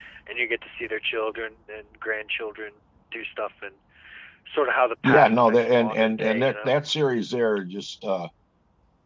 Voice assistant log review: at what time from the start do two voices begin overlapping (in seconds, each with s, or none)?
5.0 s